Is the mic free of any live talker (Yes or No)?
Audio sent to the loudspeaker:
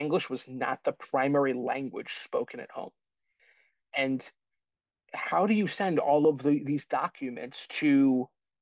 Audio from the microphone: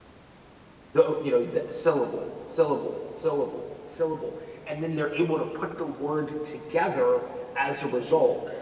No